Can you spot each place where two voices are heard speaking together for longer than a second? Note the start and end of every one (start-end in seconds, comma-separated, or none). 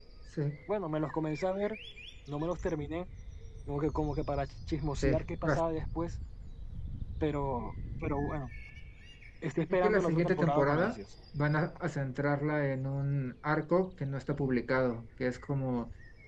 9.7-11.0